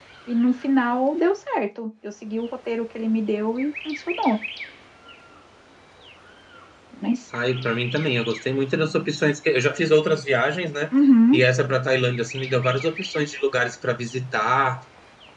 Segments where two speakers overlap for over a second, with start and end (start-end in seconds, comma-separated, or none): none